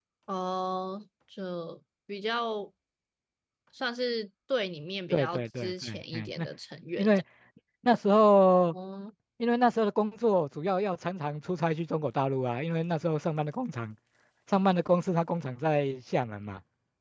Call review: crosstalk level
present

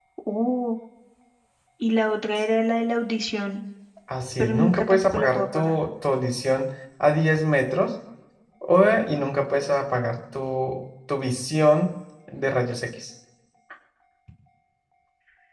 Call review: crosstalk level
present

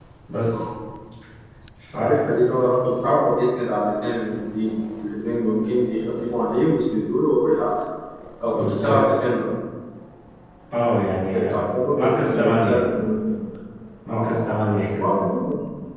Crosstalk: present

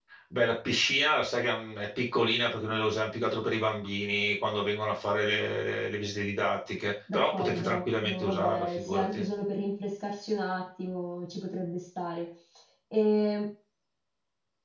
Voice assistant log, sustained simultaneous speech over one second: present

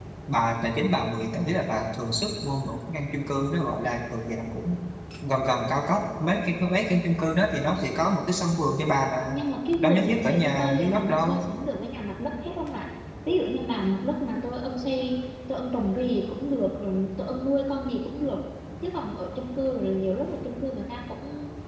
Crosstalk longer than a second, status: present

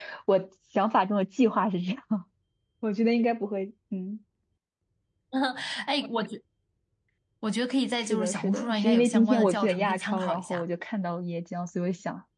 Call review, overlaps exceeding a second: present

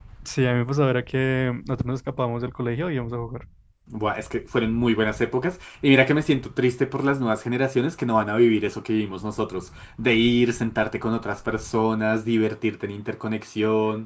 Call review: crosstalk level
none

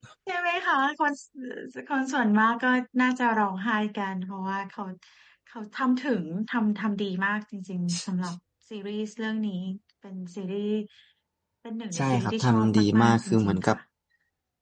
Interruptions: present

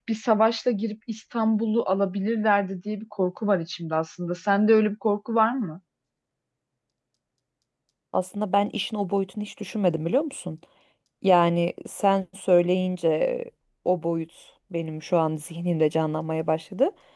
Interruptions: none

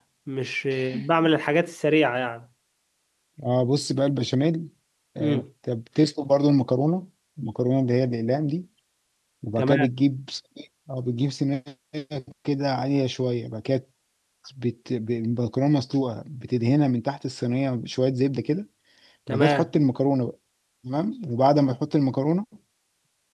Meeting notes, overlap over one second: none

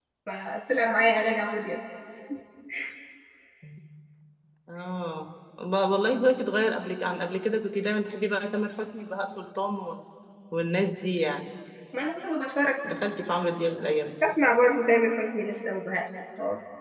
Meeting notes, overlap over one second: none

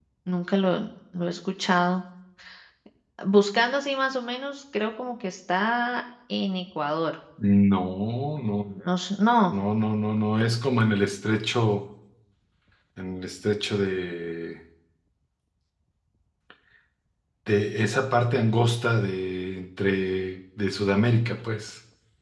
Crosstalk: none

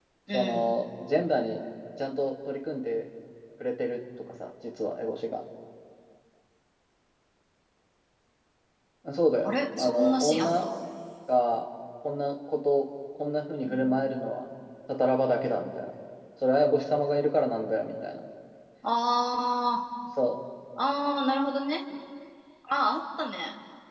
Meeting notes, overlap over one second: present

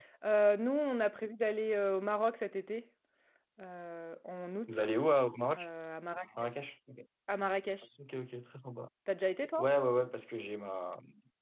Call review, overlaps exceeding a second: none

